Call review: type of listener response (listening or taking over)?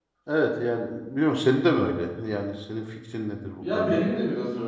taking over